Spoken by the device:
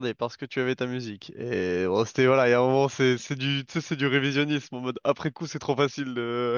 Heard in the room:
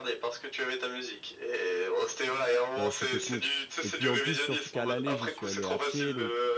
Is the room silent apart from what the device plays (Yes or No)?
No